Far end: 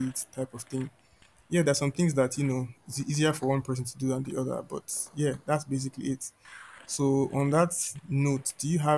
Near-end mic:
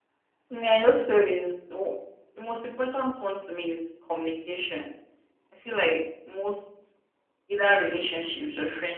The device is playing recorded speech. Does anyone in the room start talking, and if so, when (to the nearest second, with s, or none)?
0 s